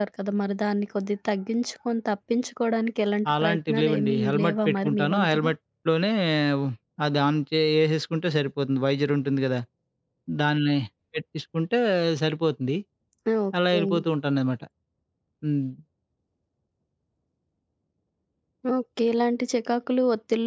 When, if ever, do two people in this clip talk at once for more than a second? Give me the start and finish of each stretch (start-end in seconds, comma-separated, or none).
3.4-5.5